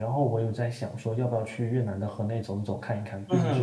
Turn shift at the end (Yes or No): Yes